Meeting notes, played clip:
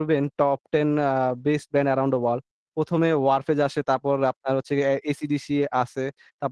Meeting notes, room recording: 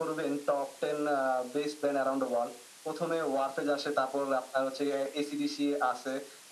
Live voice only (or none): none